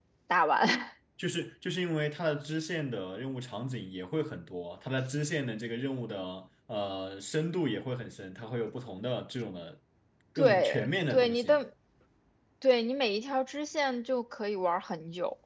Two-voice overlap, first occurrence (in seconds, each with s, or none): 10.4 s